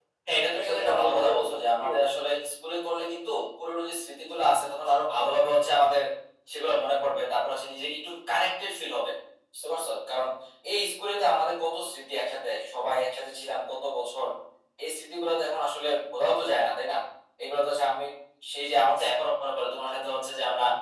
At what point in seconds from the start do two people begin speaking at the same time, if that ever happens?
0.6 s

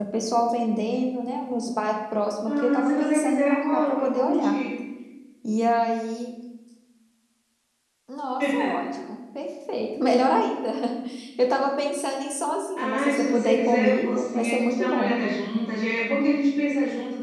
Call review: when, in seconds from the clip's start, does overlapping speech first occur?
2.5 s

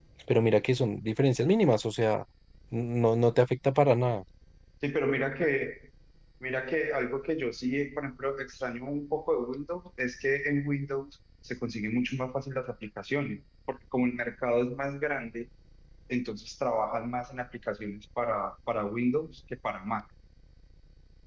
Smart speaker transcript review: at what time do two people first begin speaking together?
none

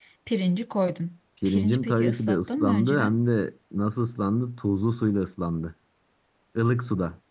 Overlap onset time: 1.4 s

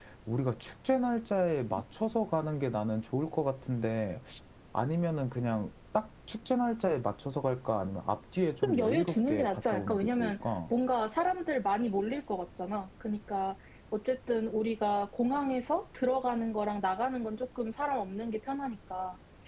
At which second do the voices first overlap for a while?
8.6 s

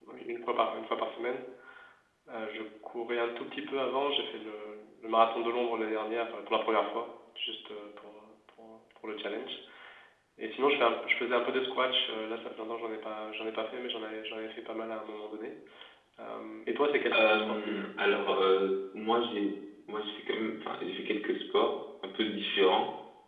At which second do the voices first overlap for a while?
17.1 s

